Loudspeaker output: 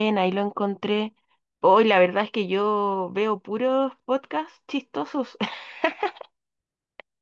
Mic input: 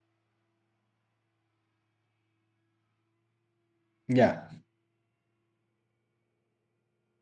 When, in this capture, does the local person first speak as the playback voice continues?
4.1 s

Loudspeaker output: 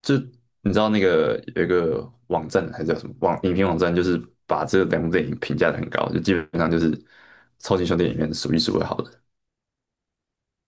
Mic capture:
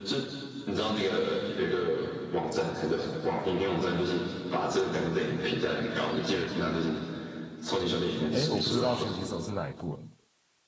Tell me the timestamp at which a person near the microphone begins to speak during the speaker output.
8.3 s

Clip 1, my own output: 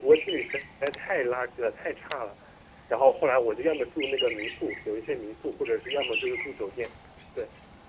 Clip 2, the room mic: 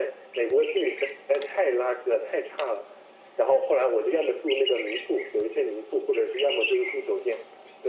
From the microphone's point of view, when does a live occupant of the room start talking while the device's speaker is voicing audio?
none

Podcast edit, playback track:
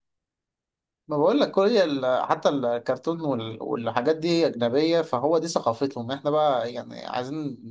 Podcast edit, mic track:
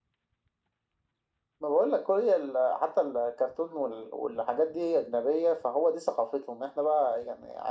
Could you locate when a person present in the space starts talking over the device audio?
none

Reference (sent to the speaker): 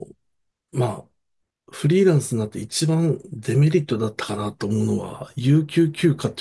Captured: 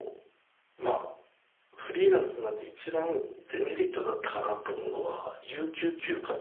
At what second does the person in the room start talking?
none

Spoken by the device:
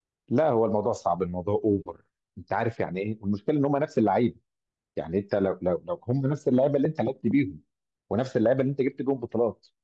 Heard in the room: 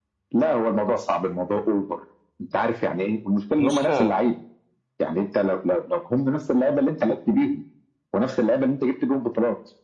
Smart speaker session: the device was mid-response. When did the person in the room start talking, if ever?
3.6 s

